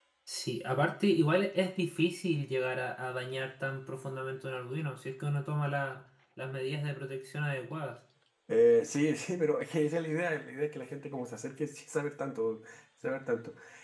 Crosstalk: none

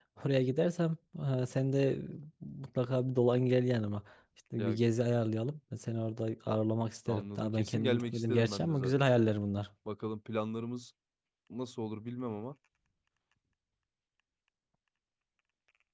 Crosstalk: present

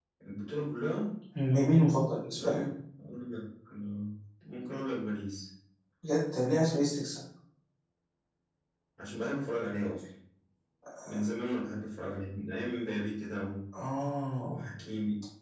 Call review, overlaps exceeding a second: none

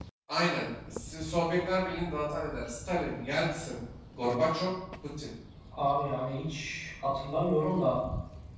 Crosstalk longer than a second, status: none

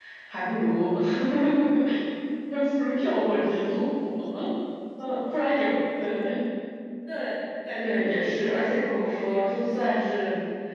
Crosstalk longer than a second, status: present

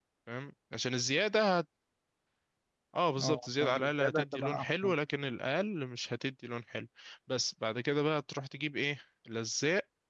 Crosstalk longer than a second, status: present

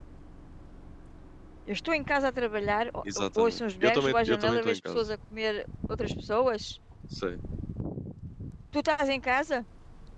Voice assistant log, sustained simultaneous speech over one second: present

